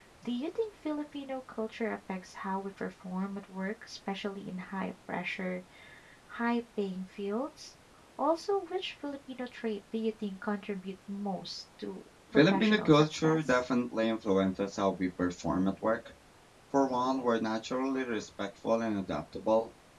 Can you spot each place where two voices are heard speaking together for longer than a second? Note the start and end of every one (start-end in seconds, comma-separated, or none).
12.3-13.6